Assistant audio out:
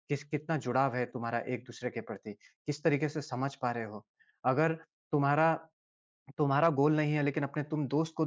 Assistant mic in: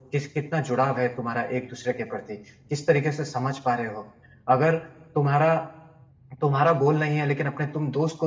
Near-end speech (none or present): none